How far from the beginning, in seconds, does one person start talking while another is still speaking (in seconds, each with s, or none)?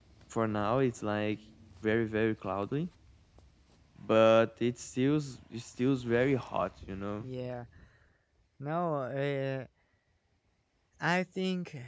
none